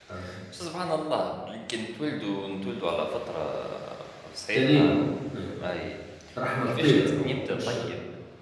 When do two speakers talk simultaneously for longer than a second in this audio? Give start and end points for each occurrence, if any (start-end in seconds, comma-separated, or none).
6.5-7.8